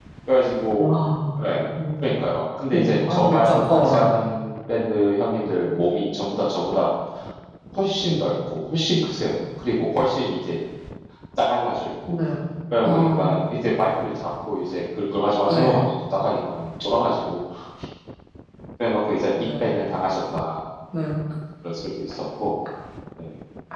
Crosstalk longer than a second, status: present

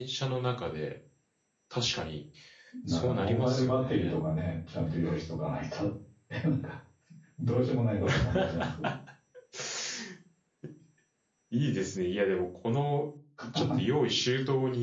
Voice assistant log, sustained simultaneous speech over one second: present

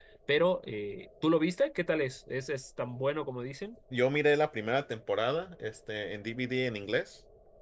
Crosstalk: none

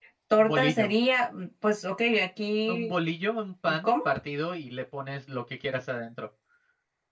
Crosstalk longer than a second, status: none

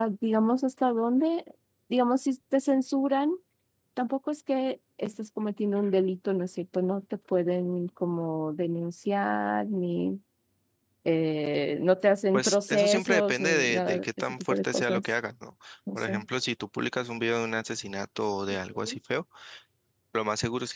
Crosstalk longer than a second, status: present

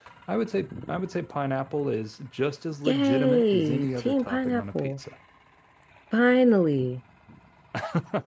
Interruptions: present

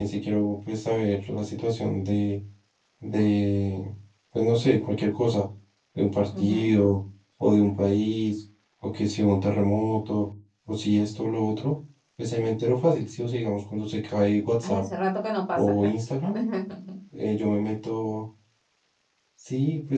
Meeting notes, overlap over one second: none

